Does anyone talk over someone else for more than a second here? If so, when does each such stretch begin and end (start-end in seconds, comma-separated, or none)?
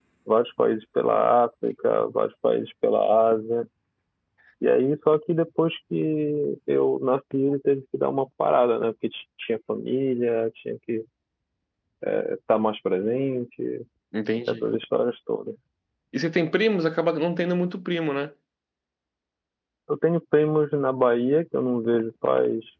none